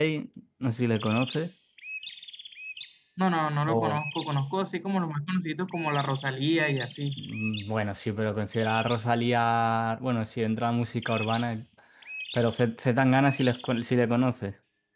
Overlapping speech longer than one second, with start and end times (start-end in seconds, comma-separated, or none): none